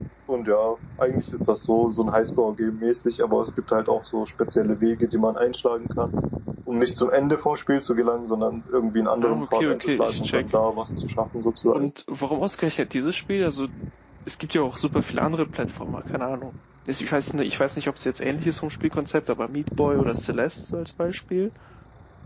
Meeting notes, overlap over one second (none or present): present